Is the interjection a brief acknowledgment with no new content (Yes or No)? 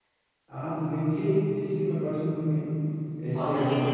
No